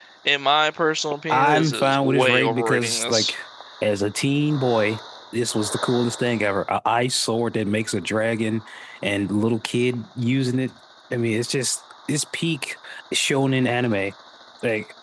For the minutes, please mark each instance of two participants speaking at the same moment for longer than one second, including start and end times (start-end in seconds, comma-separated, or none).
1.3-3.4